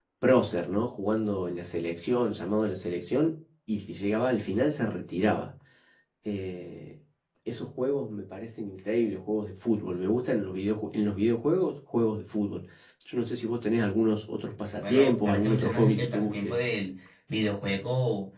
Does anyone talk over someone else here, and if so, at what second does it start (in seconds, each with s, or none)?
14.8 s